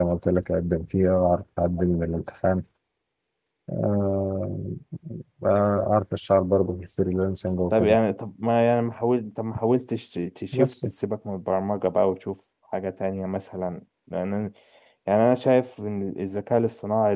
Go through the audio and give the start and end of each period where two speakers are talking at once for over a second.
none

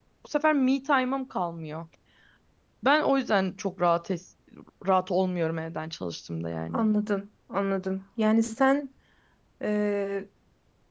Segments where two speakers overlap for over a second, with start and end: none

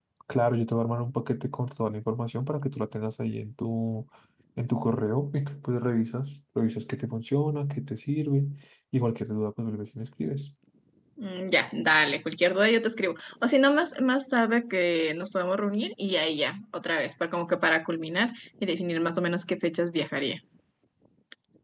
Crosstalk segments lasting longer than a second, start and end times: none

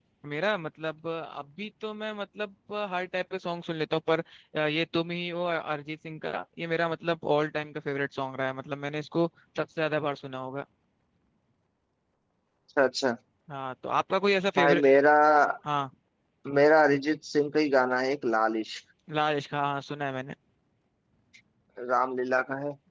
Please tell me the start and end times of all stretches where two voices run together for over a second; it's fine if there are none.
none

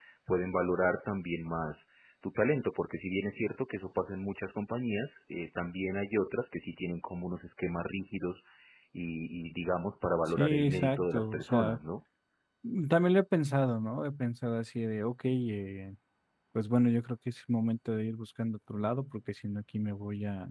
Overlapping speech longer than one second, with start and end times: 10.3-11.8

